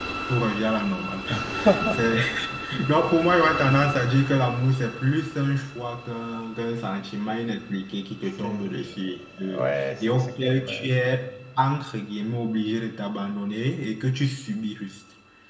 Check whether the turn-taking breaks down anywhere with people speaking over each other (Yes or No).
Yes